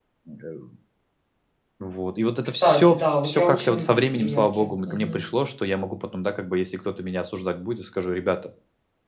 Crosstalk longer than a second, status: present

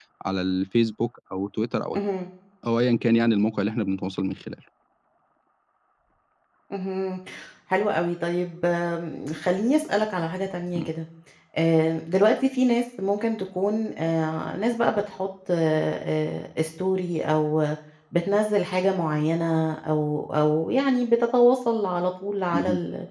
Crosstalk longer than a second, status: none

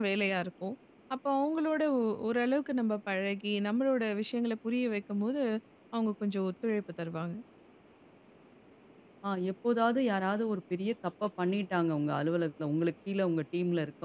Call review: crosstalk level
none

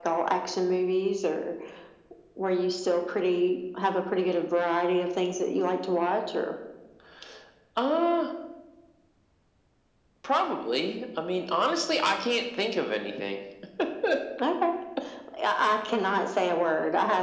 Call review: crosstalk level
none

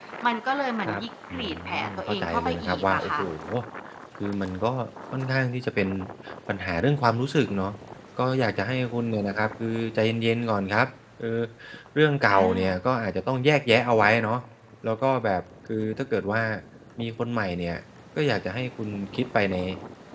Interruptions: present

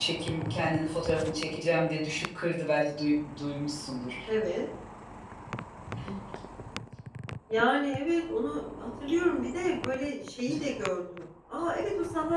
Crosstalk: none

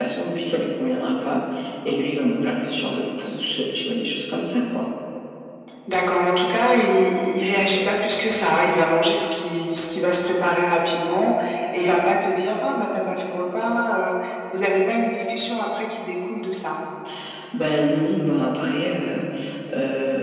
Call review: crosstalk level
none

